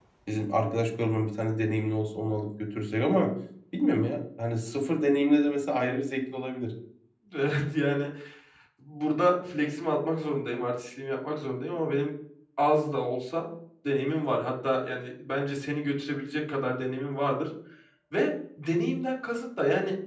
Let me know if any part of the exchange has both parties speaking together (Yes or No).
No